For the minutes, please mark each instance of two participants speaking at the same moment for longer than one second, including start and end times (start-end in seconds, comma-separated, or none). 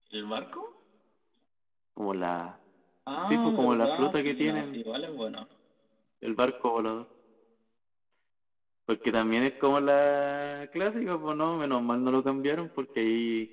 3.2-4.8